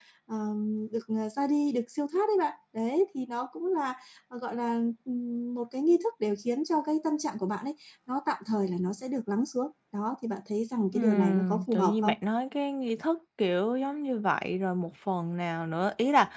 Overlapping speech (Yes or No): Yes